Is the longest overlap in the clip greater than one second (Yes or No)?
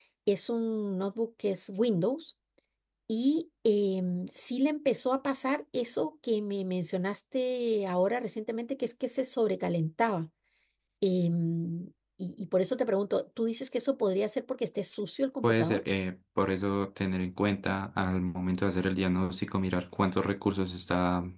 No